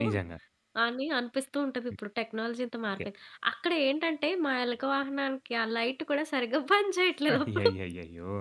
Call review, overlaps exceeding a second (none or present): none